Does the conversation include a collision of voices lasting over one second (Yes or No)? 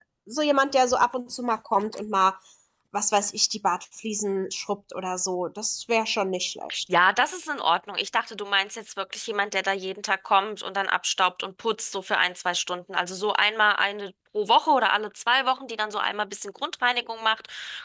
No